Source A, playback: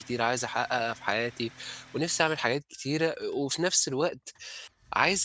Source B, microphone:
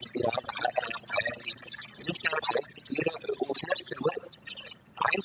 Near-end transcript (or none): none